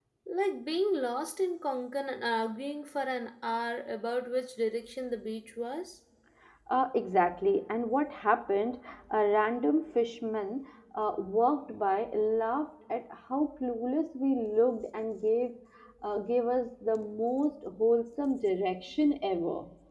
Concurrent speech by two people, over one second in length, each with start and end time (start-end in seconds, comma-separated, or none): none